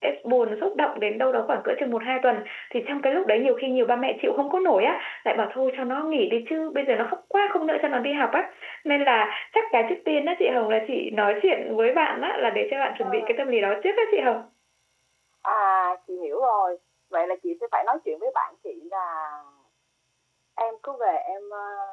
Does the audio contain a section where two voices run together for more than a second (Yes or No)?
No